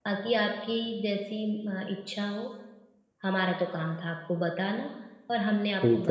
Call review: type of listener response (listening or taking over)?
listening